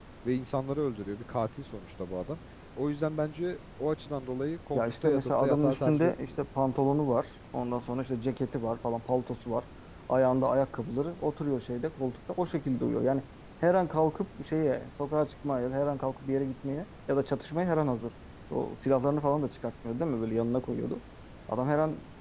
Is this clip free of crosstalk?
No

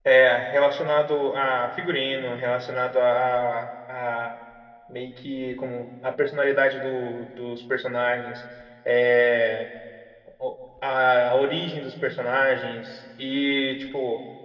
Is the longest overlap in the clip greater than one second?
No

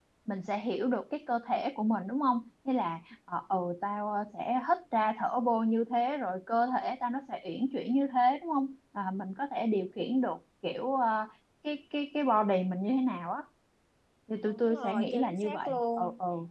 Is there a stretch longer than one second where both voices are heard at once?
Yes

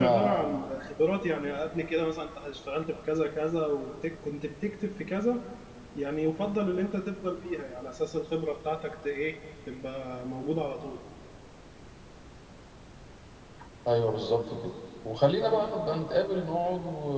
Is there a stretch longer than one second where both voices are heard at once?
No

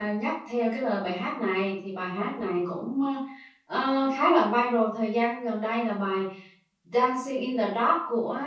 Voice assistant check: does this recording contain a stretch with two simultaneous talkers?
No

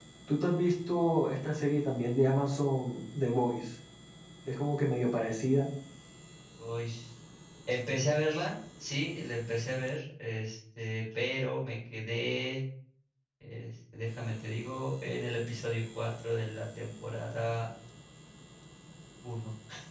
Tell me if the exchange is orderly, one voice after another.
Yes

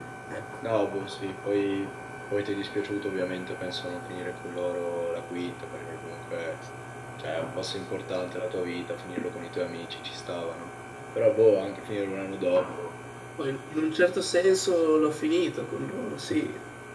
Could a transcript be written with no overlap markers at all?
Yes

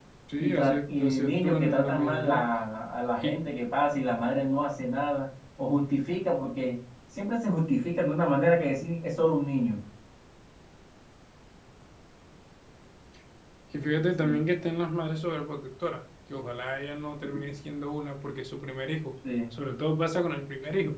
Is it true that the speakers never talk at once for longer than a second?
No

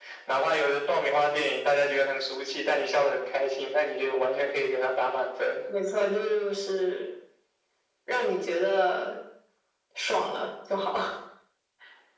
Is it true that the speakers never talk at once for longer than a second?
Yes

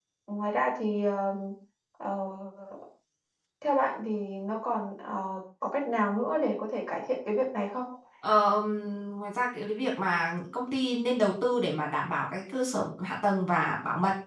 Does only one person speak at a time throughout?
Yes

